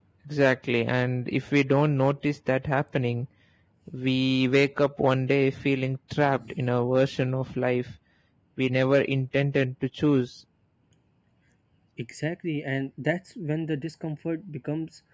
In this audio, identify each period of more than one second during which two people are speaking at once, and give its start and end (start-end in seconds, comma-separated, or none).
none